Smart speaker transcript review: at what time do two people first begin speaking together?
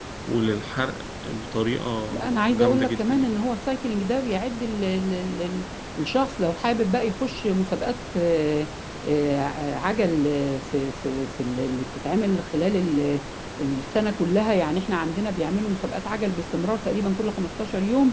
2.1 s

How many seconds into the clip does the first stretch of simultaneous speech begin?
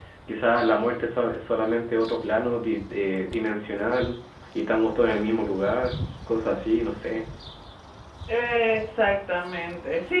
none

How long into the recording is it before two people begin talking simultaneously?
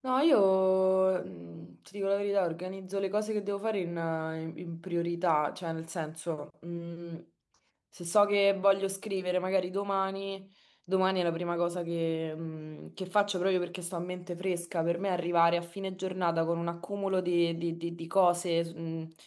none

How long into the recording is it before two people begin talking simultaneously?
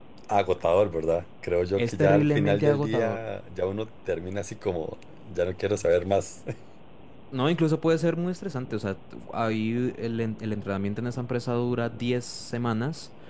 1.8 s

